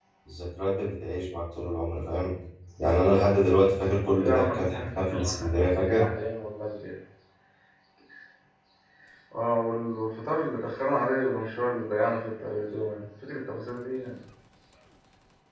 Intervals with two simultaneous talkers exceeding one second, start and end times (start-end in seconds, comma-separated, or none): 4.2-5.5